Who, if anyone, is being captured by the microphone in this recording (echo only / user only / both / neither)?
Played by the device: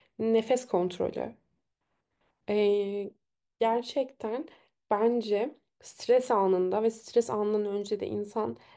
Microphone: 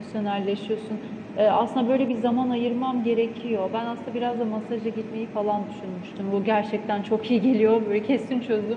user only